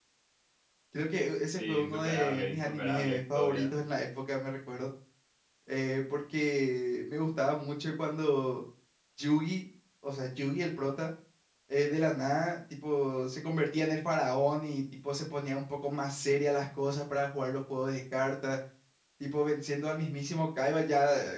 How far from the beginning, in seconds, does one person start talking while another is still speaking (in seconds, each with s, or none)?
1.6 s